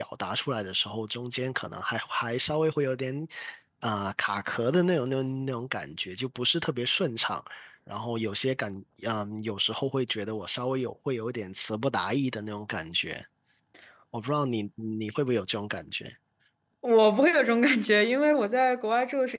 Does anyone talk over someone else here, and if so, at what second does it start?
none

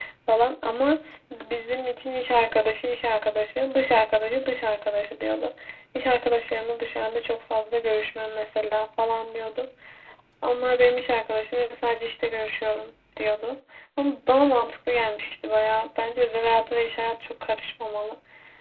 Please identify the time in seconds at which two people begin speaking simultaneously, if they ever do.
none

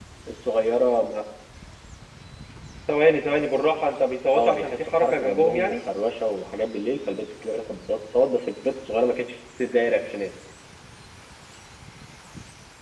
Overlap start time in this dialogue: 4.3 s

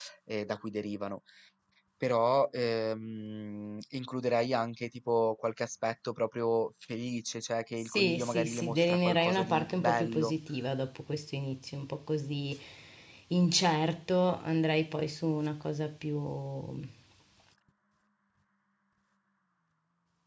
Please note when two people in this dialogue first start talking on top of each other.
7.8 s

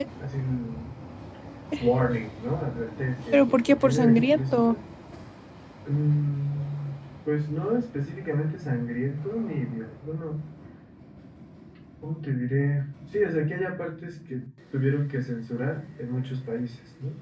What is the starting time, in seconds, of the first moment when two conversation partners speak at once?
3.3 s

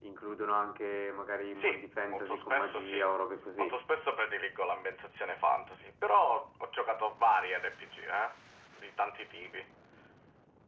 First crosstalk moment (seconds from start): 1.6 s

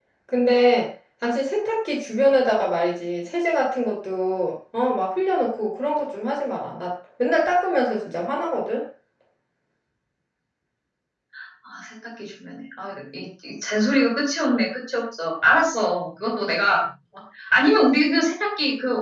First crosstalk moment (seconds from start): none

